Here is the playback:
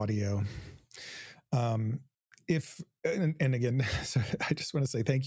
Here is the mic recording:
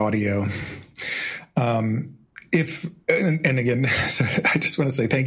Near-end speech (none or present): none